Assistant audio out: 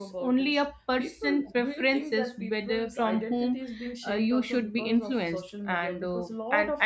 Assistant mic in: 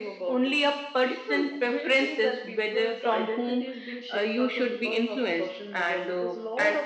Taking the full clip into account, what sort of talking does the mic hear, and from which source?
echo only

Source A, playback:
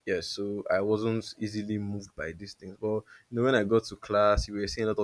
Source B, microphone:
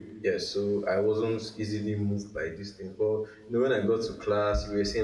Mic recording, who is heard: echo only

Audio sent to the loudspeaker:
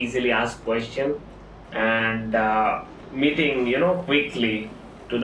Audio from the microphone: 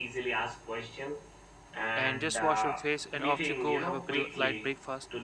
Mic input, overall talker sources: both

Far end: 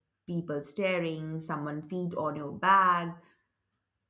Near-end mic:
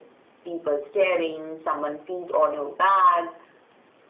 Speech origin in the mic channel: echo only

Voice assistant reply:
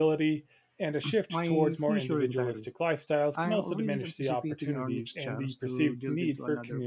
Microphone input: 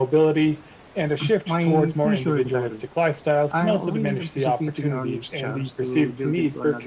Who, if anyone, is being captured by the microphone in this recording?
echo only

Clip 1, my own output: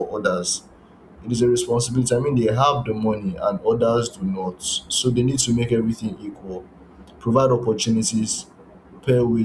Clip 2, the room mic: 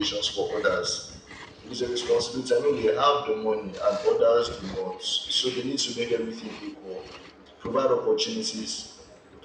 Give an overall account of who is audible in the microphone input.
echo only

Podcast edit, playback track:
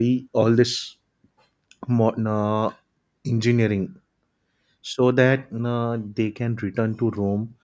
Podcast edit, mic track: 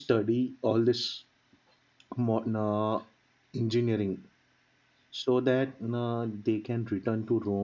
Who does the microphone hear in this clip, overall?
echo only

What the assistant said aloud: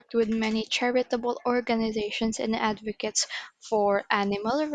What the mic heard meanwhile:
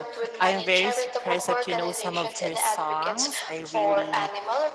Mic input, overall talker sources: both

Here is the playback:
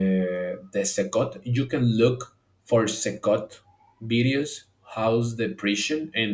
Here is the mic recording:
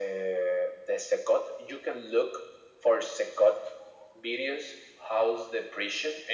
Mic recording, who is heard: echo only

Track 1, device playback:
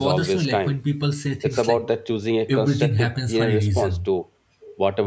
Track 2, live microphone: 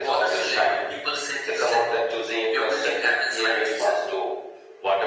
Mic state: echo only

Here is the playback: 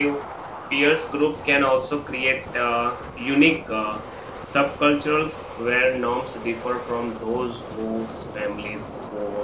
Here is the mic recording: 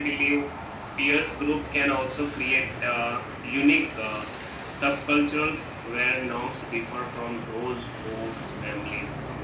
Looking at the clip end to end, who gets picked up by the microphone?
echo only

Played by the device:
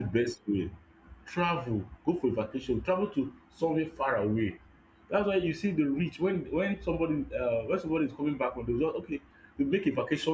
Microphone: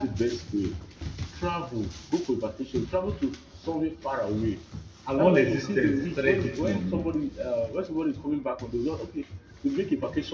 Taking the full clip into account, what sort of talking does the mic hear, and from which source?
both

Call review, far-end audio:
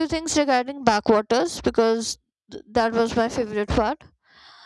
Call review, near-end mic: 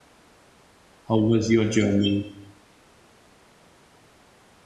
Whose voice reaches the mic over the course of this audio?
user only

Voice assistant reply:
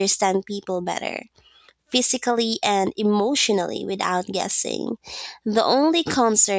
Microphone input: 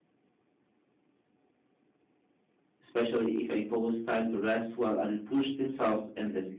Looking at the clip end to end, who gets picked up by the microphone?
user only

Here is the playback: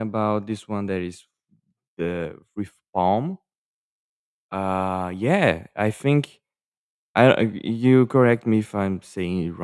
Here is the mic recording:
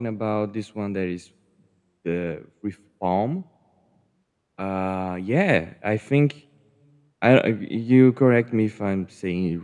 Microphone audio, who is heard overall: echo only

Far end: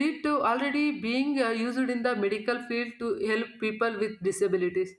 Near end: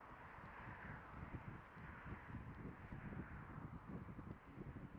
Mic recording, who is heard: neither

